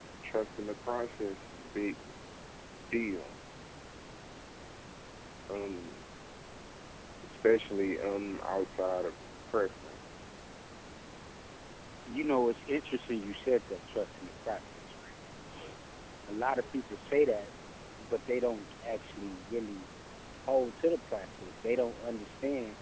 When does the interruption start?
none

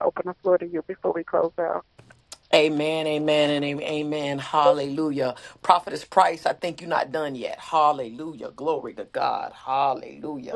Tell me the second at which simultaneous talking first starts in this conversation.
none

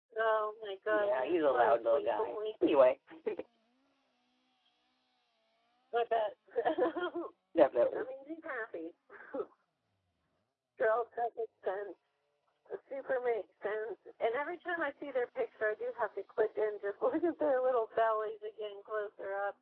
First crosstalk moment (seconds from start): 0.9 s

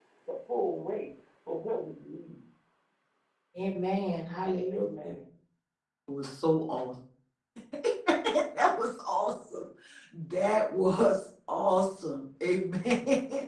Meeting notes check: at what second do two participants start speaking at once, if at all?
none

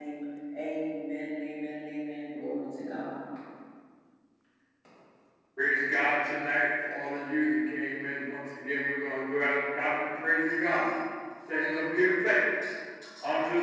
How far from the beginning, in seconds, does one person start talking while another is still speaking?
none

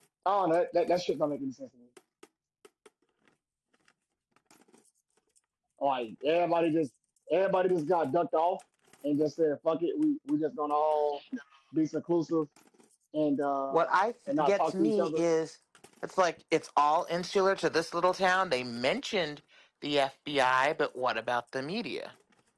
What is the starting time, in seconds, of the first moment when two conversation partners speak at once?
13.7 s

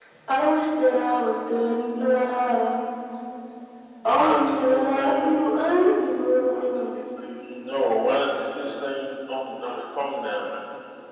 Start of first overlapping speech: 4.0 s

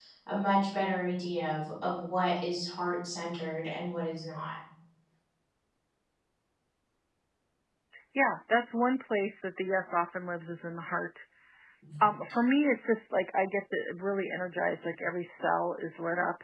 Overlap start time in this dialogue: none

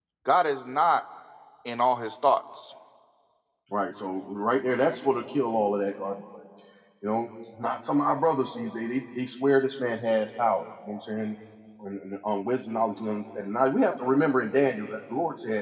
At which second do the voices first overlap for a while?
none

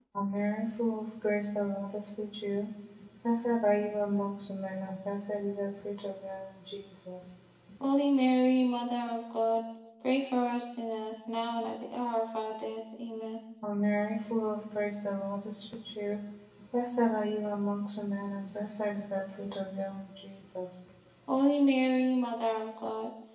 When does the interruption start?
none

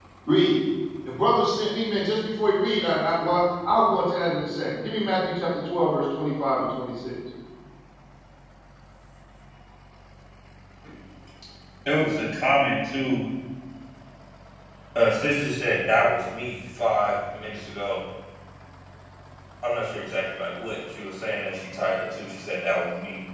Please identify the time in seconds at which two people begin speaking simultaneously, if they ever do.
none

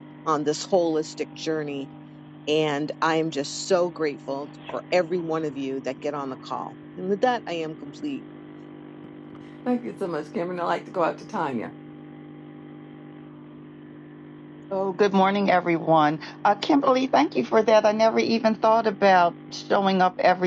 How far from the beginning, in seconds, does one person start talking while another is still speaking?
none

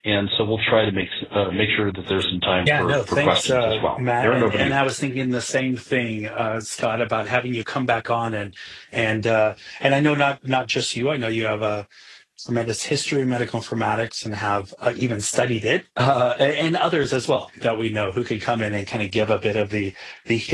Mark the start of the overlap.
2.6 s

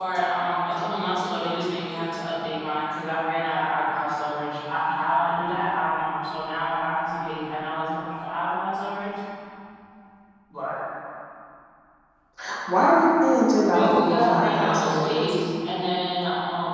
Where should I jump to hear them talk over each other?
13.7 s

